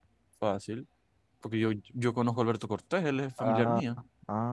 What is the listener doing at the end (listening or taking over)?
taking over